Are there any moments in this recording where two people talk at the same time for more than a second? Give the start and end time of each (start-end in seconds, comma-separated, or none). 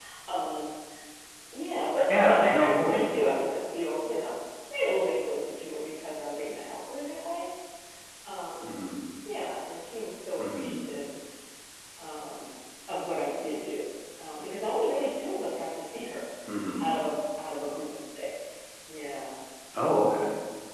2.1-3.3